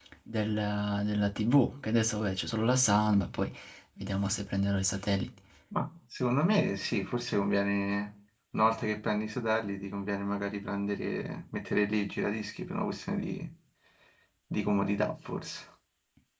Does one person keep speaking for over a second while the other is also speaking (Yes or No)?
No